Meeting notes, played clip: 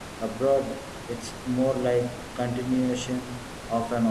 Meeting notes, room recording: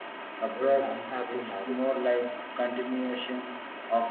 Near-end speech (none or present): present